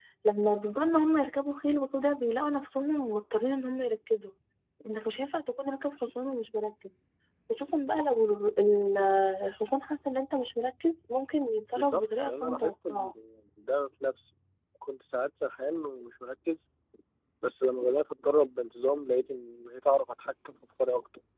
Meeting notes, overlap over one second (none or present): present